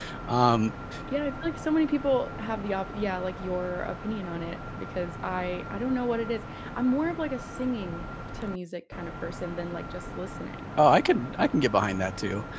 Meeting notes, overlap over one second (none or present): none